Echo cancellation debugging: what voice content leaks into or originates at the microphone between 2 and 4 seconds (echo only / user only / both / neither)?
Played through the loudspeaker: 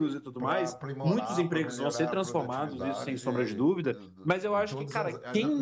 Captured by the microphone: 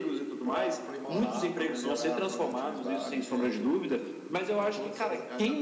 echo only